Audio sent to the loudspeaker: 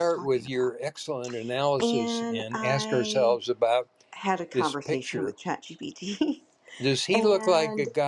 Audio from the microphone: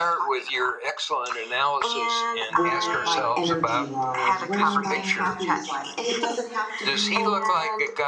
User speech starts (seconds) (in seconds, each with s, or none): 2.5 s